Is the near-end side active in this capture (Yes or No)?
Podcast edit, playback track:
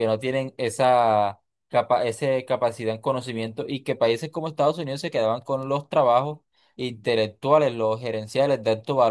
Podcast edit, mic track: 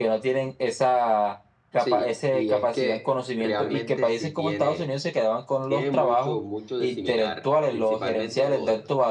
Yes